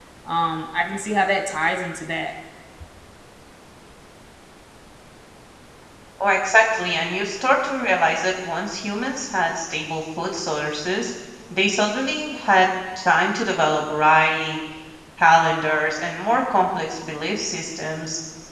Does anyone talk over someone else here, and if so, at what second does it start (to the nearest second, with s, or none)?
none